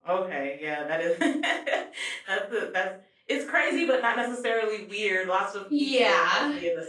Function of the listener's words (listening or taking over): listening